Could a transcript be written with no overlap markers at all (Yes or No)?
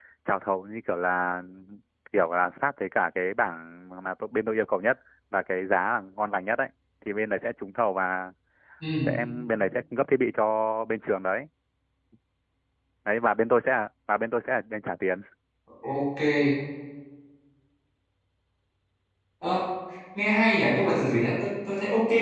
Yes